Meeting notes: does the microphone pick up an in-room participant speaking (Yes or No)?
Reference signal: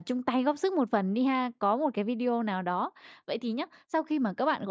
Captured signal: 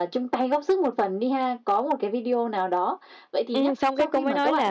Yes